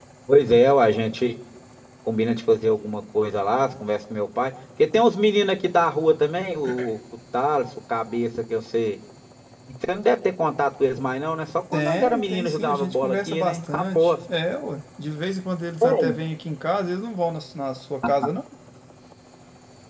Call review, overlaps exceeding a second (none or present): present